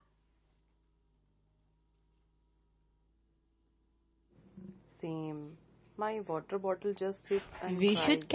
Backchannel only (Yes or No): No